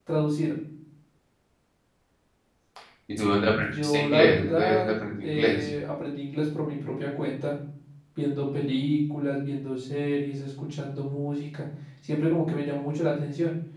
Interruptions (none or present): present